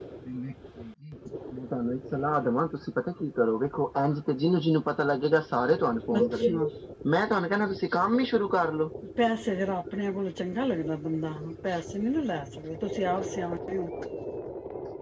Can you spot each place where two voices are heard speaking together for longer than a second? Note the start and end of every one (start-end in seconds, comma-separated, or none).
none